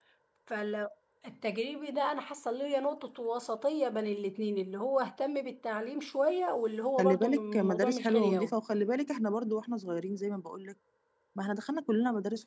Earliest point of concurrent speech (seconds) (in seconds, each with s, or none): 7.0 s